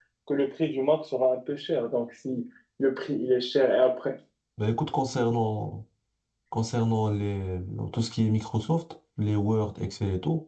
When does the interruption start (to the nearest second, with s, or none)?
none